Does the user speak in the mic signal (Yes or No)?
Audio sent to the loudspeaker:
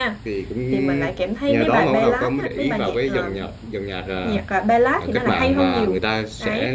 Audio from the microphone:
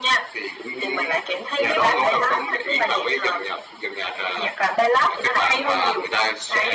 No